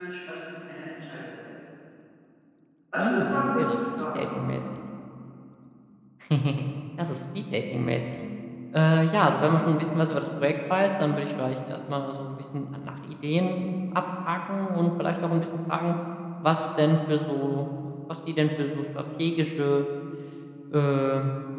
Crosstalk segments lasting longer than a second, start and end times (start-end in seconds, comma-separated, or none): 3.0-4.2